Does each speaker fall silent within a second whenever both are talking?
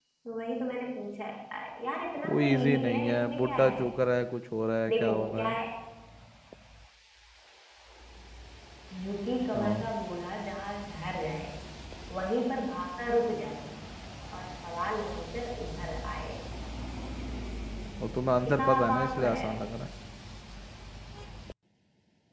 No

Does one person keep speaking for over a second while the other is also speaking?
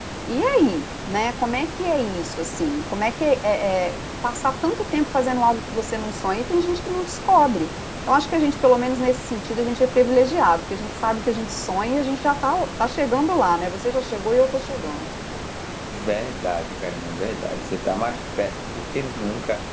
No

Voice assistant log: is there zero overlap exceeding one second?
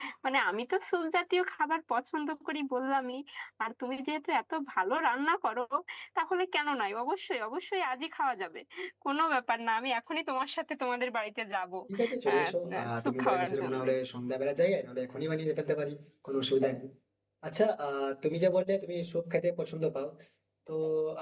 No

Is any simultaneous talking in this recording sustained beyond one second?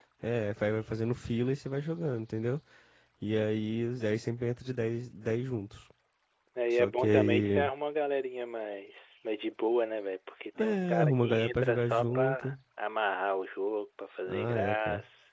Yes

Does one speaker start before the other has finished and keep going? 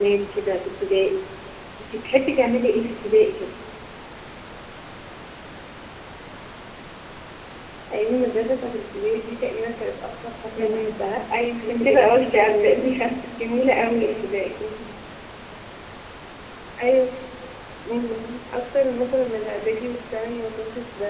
Yes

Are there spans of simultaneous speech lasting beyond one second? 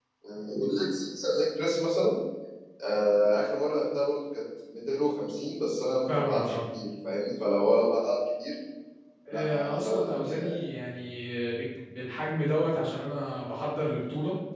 Yes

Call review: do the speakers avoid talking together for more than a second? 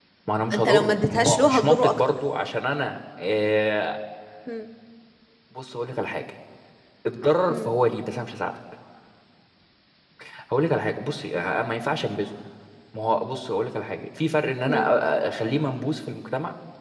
No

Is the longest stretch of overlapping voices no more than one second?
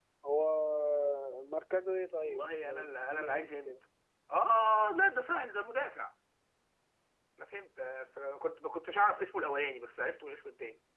No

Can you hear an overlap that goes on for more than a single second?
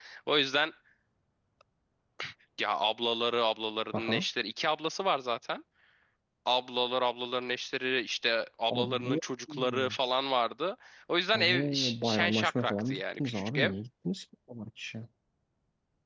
Yes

